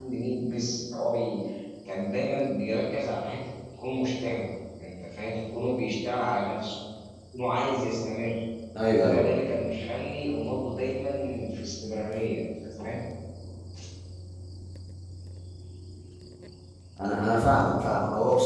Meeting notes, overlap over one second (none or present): none